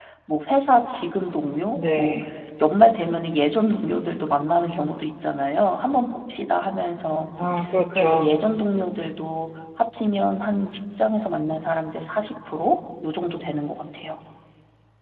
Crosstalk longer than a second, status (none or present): none